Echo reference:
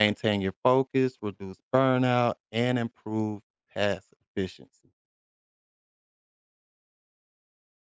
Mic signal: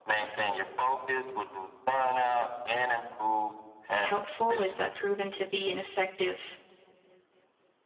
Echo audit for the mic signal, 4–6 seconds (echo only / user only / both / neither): both